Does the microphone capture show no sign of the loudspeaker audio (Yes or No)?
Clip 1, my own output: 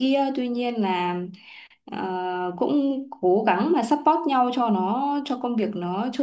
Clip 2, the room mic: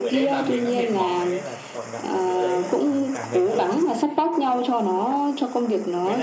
No